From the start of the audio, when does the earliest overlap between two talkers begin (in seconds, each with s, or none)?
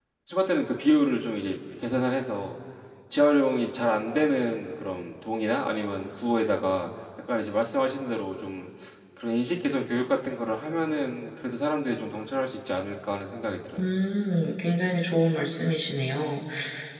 none